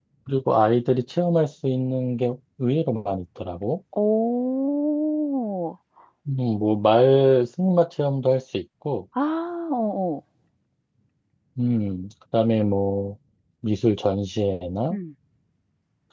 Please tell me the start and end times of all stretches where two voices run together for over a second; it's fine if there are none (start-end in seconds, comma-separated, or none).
none